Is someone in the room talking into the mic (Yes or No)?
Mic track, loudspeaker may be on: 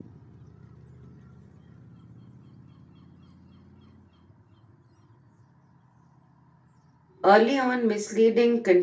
Yes